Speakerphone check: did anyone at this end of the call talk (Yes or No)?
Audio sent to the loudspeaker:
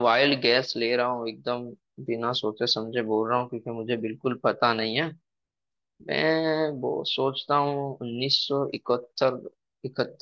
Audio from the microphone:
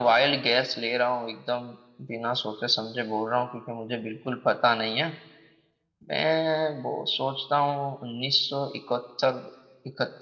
No